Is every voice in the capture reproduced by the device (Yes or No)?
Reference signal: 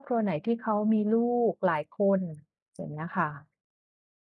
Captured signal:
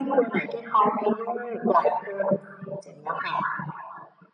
Yes